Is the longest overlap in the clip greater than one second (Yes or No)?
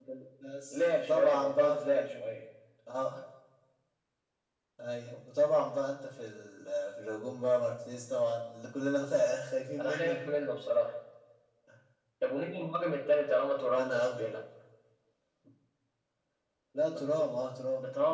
Yes